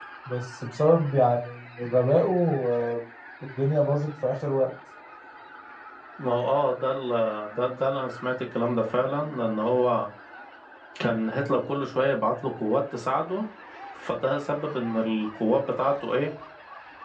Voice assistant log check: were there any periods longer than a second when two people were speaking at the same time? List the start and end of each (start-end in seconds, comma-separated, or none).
none